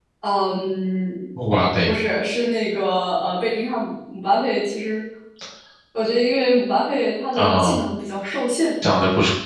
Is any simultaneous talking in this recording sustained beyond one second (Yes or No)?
No